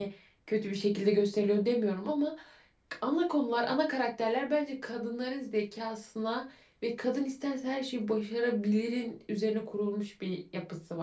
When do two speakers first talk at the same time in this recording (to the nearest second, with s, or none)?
none